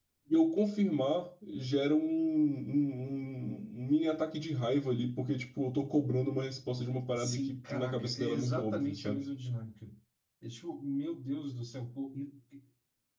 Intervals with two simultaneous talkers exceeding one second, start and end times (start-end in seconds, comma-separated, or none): 7.1-9.2